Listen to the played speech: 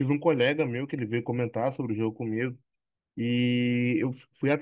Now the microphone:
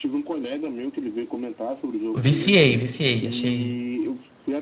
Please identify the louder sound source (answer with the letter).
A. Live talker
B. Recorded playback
A